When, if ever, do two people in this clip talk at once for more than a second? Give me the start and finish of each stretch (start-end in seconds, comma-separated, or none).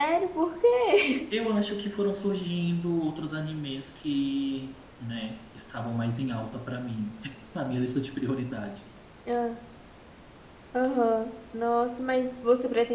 none